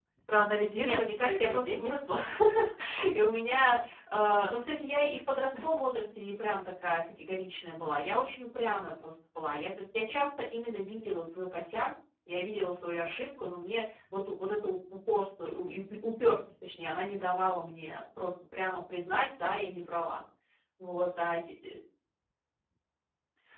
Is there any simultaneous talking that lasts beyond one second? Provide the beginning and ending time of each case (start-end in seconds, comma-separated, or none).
0.7-1.9